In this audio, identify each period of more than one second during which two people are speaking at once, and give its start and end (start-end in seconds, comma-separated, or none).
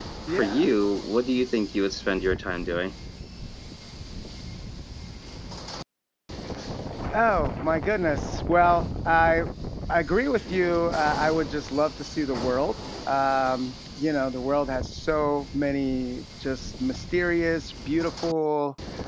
none